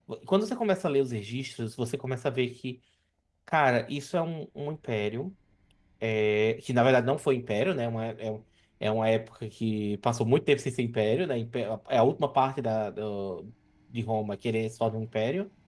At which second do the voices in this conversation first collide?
none

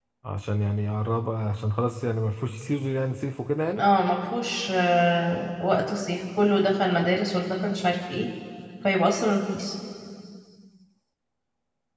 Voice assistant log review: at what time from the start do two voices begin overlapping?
none

